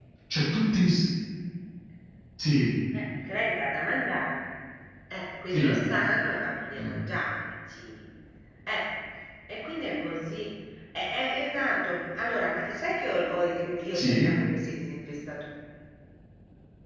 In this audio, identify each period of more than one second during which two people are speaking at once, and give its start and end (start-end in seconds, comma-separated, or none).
none